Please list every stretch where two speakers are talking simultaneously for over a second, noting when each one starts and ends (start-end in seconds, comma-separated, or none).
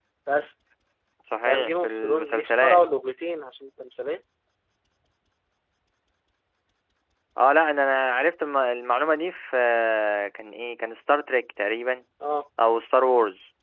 1.4-2.8